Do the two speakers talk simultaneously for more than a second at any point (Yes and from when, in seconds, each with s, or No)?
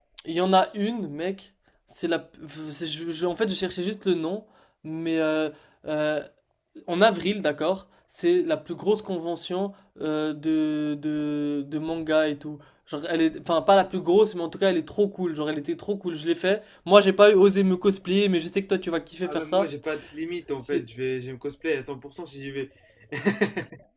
No